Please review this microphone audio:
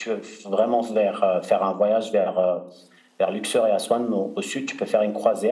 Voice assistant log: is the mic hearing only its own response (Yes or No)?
Yes